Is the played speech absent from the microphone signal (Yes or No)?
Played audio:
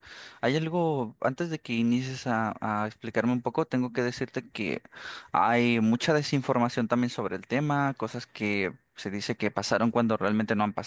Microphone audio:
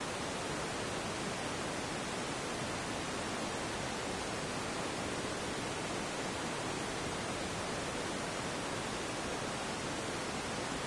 Yes